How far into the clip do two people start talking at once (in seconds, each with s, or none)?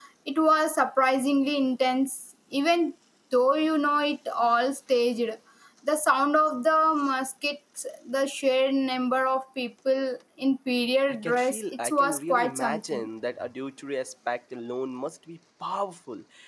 11.1 s